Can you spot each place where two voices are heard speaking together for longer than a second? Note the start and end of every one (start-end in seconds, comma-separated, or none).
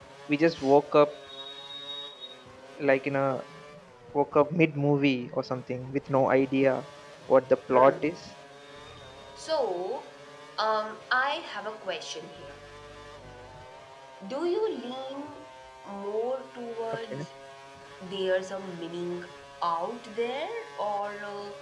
none